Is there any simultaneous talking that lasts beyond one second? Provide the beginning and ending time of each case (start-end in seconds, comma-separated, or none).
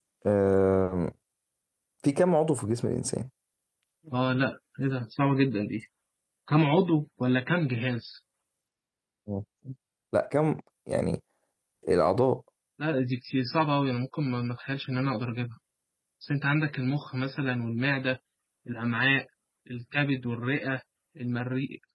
none